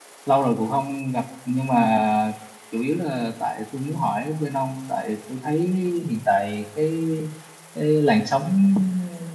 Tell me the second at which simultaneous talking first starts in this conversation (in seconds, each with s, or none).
none